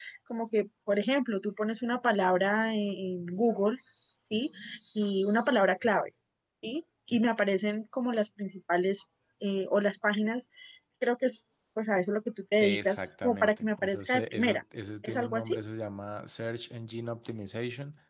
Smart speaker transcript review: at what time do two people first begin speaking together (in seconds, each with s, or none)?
12.6 s